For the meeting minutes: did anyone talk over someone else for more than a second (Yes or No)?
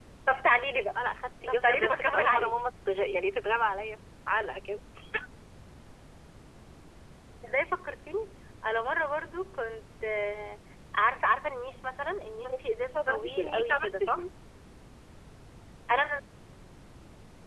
Yes